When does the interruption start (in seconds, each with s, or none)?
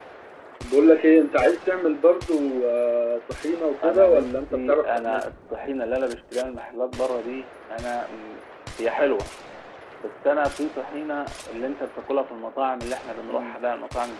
3.8 s